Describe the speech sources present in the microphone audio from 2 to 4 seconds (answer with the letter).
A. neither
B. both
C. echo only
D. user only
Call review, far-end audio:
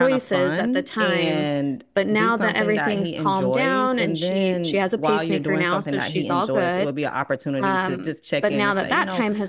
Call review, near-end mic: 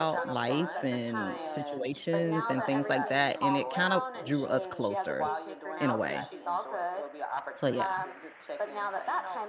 B